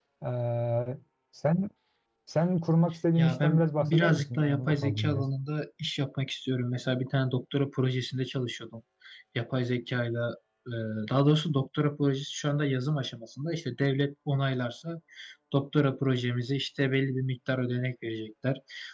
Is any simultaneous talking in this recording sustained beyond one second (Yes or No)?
Yes